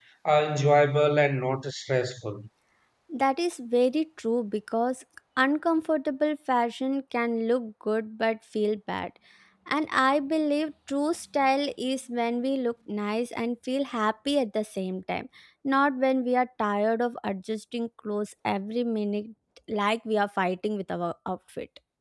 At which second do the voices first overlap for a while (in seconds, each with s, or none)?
none